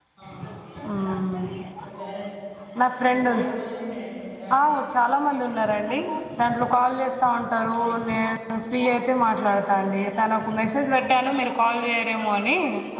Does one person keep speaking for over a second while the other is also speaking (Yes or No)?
No